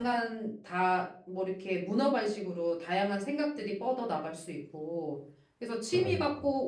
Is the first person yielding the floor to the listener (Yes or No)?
No